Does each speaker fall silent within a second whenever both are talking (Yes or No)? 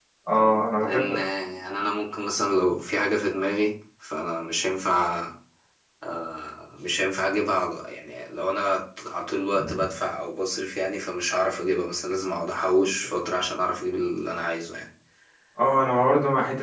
Yes